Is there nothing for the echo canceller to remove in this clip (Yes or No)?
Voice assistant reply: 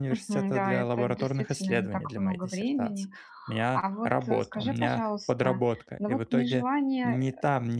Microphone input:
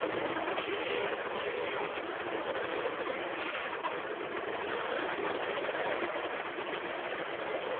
Yes